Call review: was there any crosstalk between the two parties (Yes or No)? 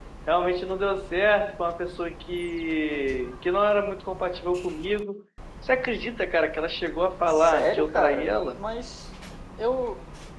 Yes